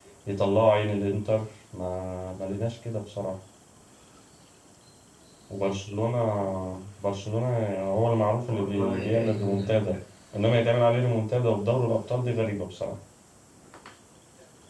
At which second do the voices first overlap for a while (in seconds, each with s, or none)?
8.5 s